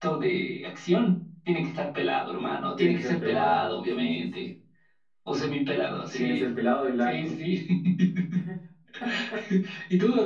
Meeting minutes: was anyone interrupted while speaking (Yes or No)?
Yes